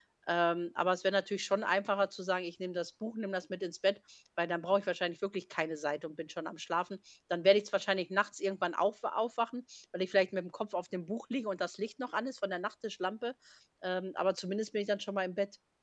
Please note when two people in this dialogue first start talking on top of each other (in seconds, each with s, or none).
none